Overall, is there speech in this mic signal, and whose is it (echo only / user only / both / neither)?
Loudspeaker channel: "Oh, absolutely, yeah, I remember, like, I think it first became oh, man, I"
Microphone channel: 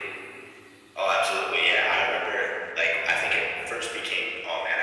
echo only